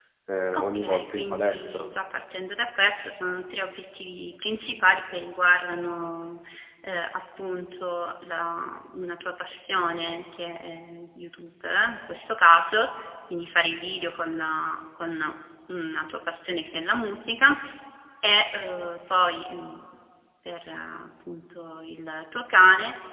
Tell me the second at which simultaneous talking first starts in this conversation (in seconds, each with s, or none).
0.5 s